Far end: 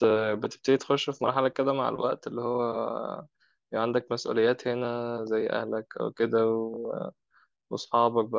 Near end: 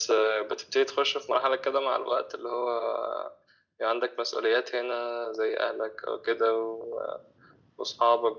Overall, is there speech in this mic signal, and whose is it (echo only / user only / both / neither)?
echo only